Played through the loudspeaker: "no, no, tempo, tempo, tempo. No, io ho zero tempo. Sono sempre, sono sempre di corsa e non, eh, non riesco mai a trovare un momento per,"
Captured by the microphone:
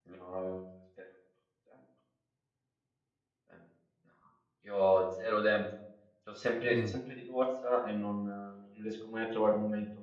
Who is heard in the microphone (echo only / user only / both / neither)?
both